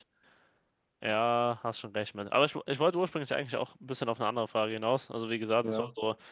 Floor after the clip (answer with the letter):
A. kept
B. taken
A